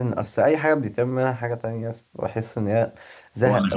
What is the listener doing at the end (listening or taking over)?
listening